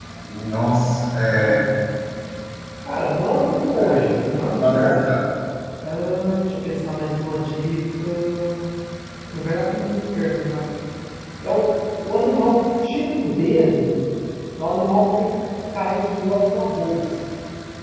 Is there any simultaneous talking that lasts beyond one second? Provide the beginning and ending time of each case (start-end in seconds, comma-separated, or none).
3.8-5.2